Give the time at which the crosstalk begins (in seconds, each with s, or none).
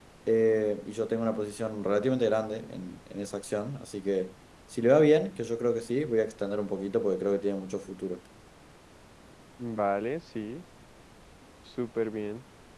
none